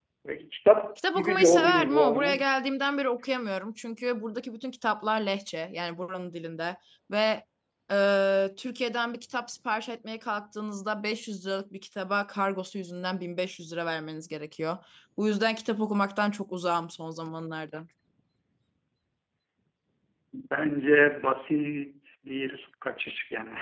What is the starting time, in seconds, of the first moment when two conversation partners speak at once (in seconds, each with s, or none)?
1.1 s